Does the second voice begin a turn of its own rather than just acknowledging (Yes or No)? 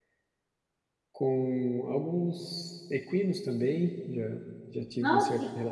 No